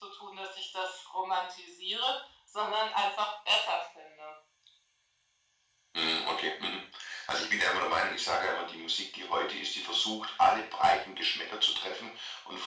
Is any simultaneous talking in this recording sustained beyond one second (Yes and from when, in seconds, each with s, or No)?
No